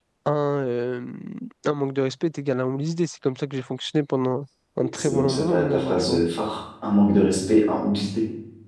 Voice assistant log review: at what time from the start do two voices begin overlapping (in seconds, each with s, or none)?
5.0 s